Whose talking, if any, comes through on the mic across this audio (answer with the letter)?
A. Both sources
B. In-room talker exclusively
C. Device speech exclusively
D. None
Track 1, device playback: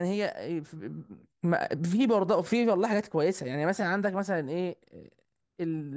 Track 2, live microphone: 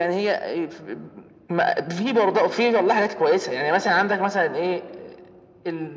C